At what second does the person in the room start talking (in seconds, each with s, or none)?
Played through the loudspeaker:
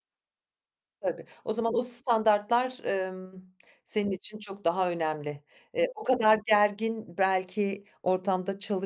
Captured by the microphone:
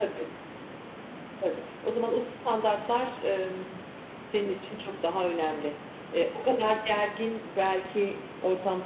none